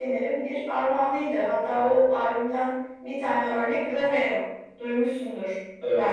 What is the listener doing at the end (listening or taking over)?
taking over